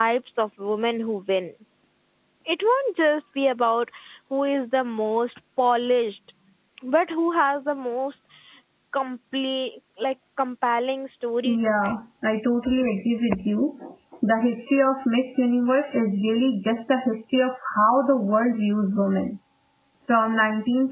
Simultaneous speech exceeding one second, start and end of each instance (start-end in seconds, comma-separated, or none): none